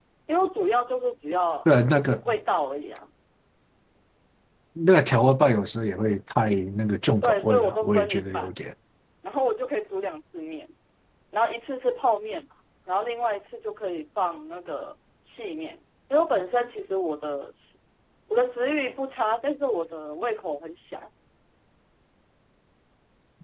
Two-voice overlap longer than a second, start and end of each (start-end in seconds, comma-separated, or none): 7.2-8.5